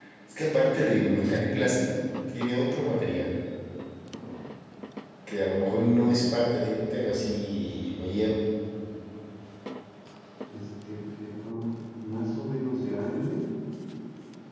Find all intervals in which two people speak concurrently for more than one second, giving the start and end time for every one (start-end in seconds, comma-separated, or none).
none